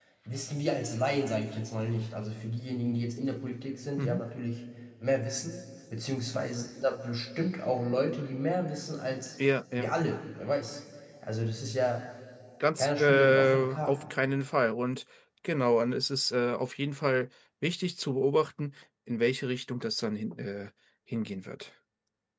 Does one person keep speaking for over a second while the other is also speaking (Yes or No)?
Yes